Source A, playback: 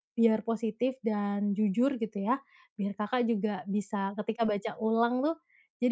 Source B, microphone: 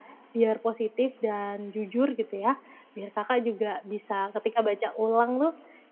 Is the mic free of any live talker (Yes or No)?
Yes